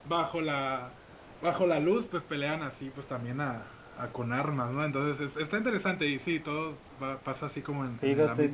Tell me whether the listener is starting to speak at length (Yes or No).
Yes